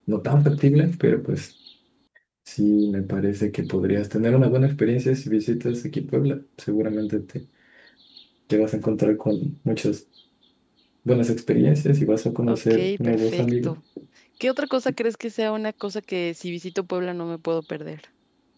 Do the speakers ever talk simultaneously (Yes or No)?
Yes